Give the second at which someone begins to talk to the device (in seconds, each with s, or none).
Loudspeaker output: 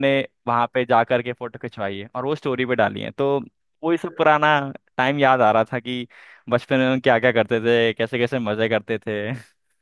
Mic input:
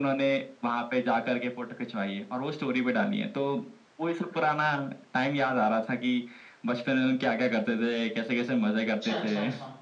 8.9 s